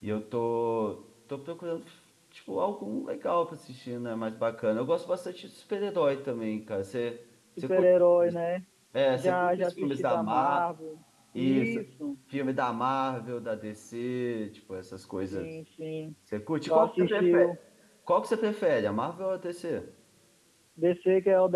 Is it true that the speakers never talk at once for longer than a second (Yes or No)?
No